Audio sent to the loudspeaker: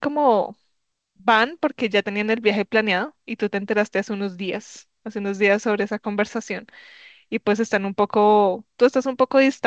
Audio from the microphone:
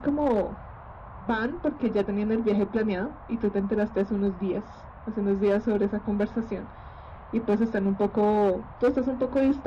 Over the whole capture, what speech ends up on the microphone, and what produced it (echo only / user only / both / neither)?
echo only